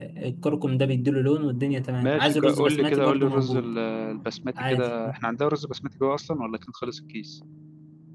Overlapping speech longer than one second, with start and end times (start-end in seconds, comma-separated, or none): 2.0-3.7